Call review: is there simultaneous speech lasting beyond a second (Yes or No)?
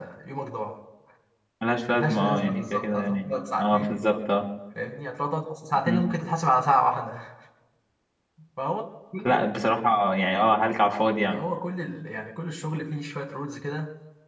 Yes